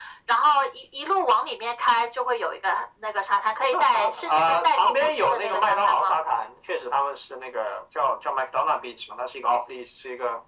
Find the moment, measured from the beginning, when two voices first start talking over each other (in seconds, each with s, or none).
3.6 s